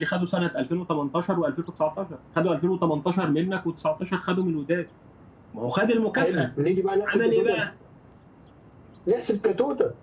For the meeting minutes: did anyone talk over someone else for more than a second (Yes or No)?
No